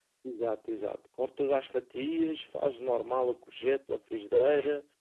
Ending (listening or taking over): listening